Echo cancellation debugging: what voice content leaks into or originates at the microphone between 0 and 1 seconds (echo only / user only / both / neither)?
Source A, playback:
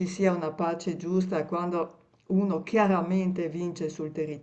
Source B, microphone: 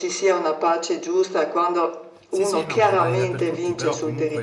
echo only